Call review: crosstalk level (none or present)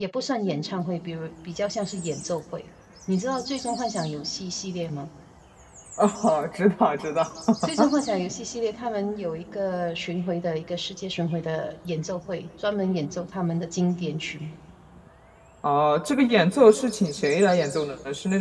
none